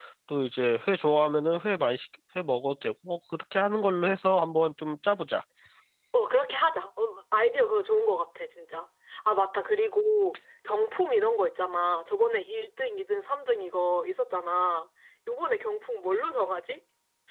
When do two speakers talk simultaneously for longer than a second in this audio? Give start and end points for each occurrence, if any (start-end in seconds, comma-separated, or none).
none